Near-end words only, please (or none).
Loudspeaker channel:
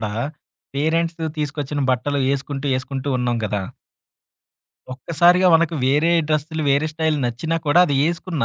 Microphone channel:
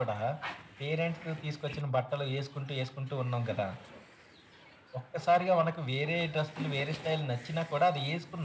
none